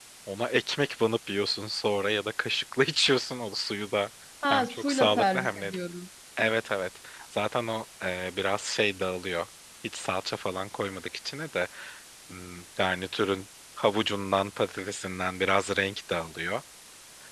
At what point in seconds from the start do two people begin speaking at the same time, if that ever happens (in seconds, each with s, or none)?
4.5 s